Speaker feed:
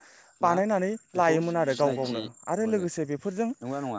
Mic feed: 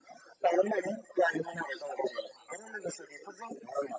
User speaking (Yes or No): No